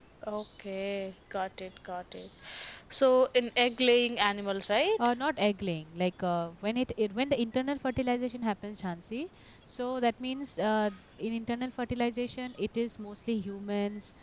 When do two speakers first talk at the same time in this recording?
none

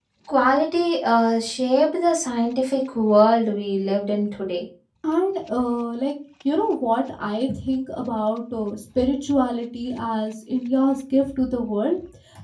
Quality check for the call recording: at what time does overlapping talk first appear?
none

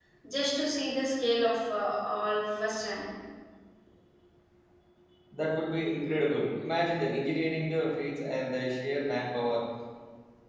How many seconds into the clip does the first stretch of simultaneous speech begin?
none

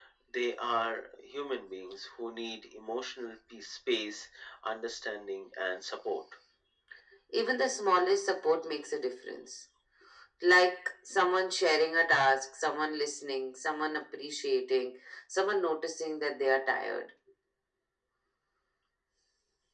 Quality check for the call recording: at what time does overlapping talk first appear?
none

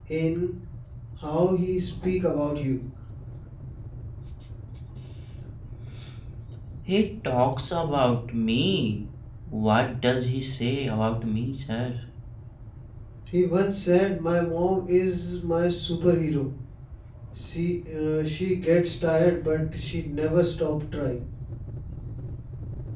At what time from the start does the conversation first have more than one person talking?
none

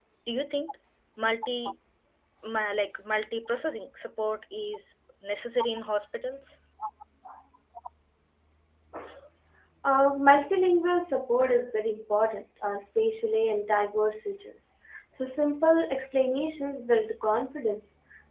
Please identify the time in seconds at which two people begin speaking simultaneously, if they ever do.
none

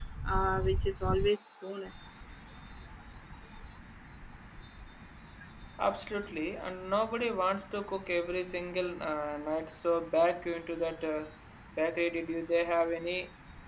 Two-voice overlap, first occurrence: none

